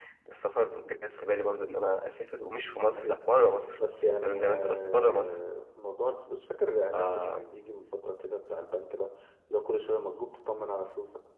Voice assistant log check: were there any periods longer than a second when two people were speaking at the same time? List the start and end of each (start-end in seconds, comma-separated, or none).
4.0-5.3